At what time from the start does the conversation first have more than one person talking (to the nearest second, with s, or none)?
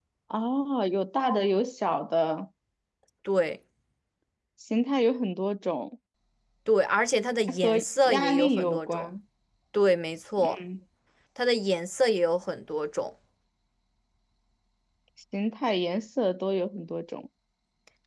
7 s